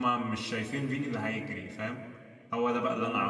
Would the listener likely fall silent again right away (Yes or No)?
Yes